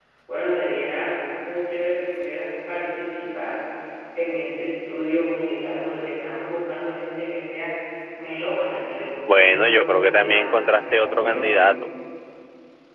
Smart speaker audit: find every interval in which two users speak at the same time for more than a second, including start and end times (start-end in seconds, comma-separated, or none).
9.4-11.5